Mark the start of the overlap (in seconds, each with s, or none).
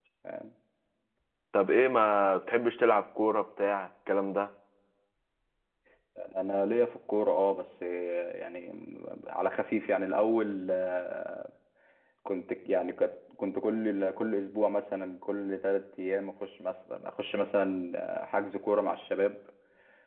none